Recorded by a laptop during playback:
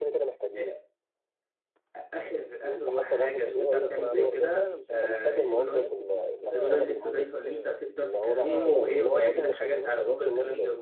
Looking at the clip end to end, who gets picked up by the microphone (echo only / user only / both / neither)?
both